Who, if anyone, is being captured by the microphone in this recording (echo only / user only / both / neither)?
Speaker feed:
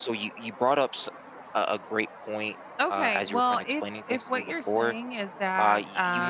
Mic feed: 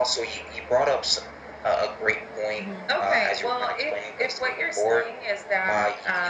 both